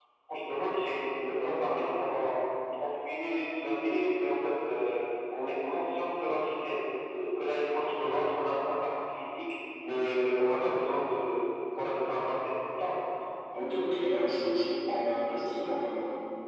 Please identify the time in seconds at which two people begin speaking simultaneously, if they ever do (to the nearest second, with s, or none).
none